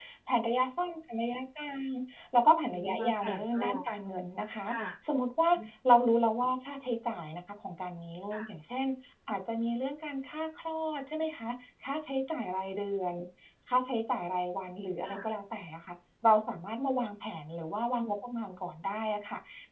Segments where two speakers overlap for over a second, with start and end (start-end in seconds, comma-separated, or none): 2.7-3.9